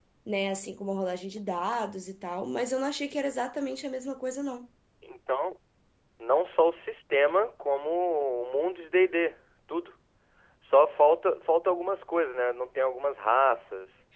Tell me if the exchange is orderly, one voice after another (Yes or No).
Yes